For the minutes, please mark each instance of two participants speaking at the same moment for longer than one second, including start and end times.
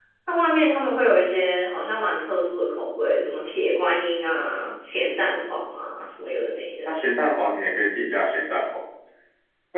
none

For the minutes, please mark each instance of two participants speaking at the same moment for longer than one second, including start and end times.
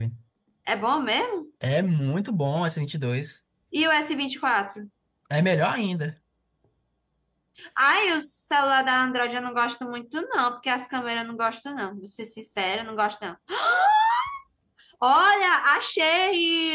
none

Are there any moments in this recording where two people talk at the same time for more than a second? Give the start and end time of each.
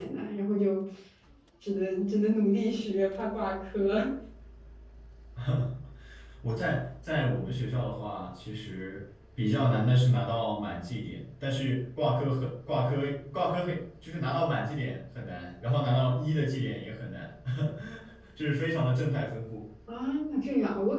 none

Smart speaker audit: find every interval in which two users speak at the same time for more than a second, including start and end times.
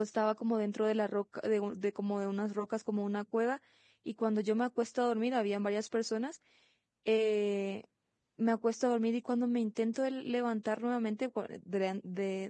none

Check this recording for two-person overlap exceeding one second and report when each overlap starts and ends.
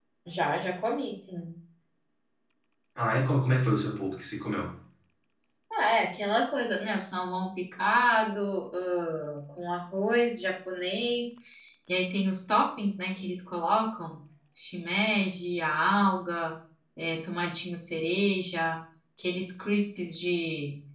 none

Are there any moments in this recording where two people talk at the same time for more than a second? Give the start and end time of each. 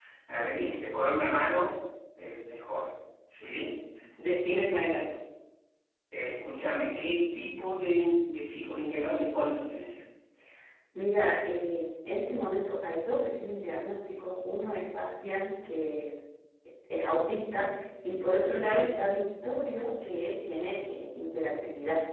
none

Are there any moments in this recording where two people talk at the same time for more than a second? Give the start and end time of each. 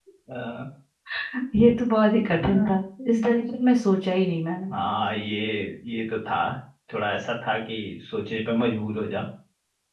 none

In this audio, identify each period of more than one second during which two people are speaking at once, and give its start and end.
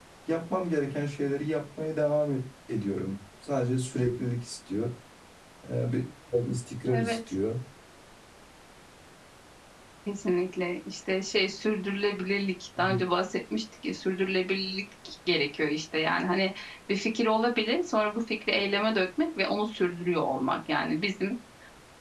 none

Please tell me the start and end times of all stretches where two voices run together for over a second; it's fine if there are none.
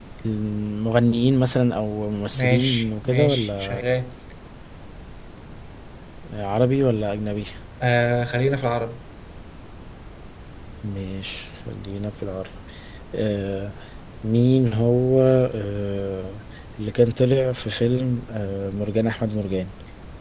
2.4-3.8

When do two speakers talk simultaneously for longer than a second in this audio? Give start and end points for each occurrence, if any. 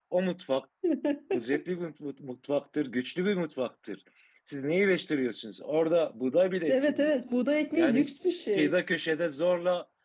none

